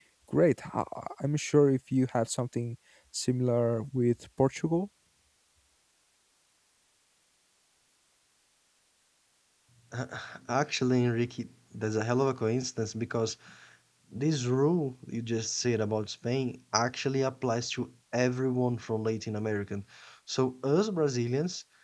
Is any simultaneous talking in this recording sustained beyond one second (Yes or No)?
No